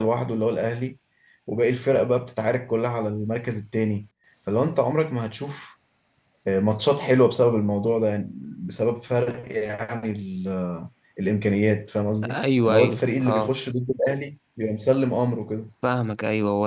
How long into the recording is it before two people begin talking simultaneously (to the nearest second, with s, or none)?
12 s